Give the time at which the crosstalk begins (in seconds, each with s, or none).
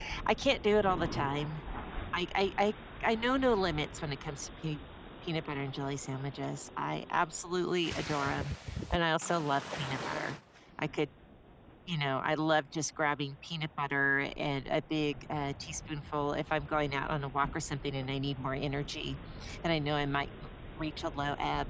none